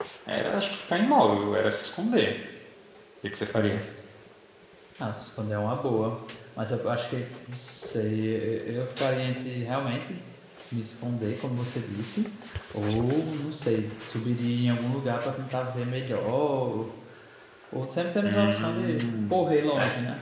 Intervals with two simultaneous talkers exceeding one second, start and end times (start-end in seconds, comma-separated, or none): 18.2-19.5